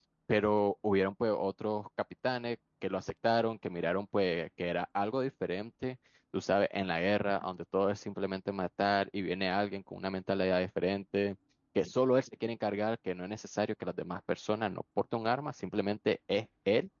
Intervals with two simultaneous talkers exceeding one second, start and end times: none

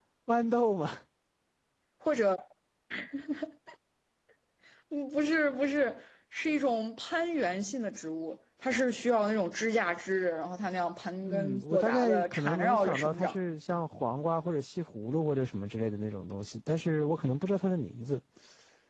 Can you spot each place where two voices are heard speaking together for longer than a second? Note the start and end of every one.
11.2-13.3

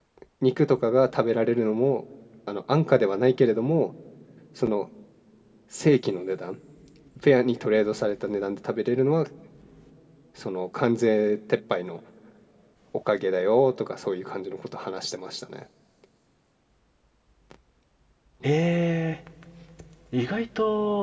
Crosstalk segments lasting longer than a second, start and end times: none

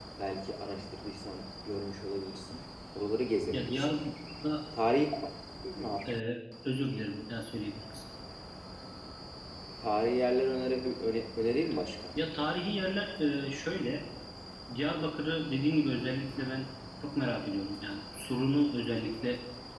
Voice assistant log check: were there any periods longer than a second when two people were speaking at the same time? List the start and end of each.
none

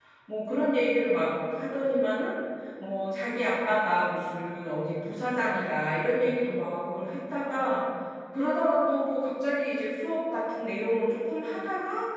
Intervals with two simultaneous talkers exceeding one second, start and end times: none

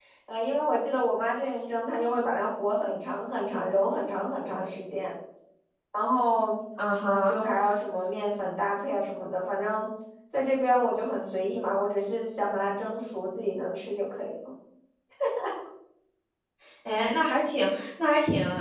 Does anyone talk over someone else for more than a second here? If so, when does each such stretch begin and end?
none

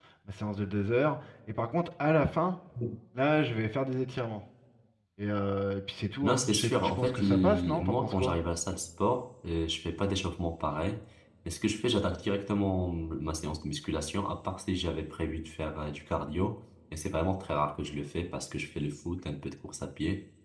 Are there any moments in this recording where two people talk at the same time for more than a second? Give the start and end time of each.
6.2-8.3

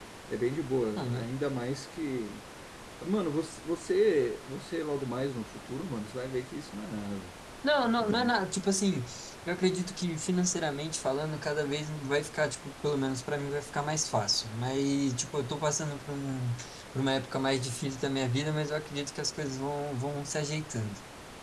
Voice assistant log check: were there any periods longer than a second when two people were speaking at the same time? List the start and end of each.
none

